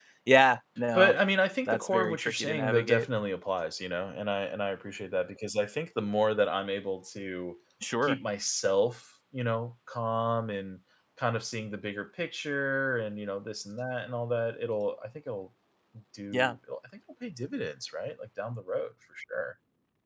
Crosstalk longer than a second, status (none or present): present